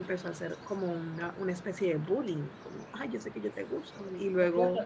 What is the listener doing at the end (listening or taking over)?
taking over